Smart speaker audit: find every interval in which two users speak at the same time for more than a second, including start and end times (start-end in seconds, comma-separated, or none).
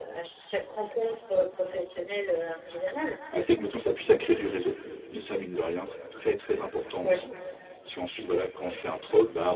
none